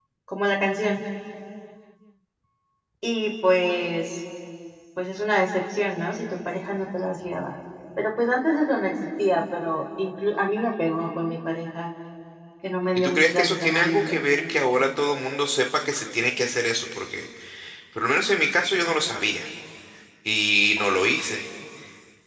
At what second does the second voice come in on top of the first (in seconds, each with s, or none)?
12.9 s